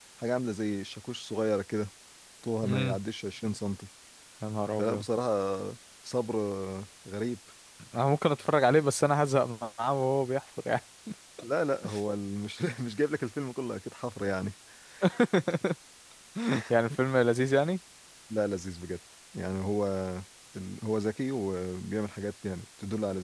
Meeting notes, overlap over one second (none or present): none